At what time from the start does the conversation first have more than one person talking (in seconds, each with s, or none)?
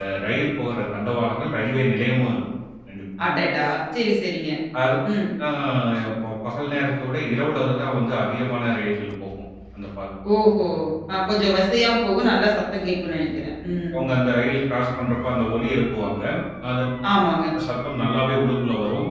none